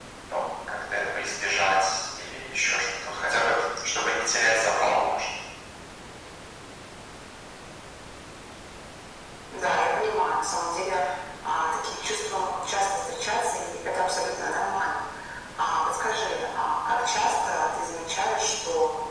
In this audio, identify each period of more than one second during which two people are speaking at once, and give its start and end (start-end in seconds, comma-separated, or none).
none